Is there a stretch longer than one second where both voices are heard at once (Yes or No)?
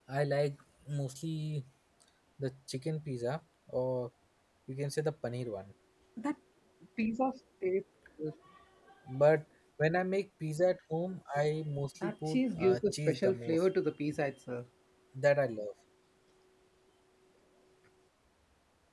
Yes